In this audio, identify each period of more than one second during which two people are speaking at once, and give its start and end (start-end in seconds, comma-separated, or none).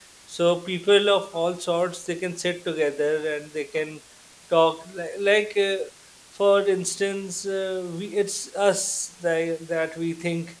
none